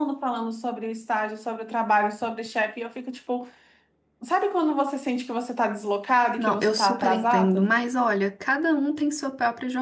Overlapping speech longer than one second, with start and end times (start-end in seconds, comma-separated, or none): 6.4-7.7